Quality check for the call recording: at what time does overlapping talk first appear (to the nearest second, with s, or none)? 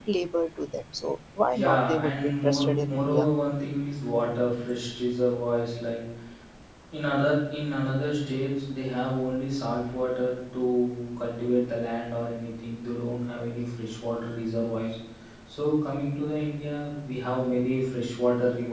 2 s